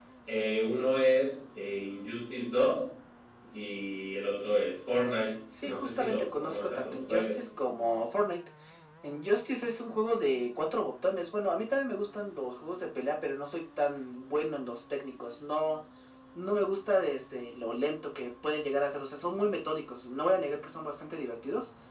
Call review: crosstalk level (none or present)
present